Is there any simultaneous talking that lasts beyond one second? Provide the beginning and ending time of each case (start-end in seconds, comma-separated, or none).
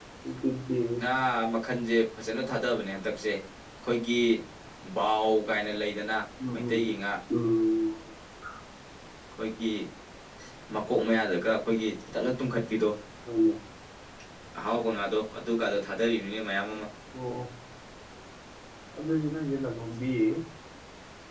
none